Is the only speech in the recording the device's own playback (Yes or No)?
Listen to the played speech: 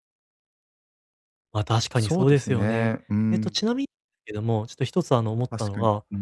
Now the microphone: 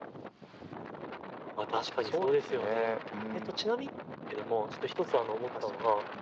Yes